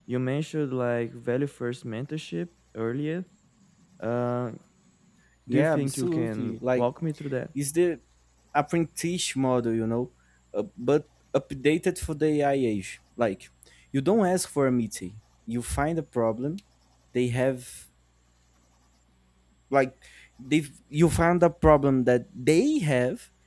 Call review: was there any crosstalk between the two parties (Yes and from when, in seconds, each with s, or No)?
Yes, from 5.5 s